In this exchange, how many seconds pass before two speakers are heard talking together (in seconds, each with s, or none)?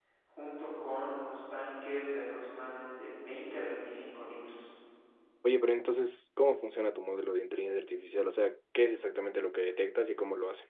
none